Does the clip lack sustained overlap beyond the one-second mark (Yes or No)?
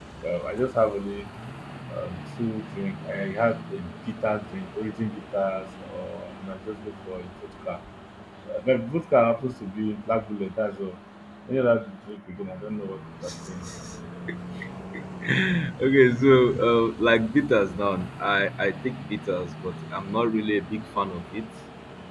Yes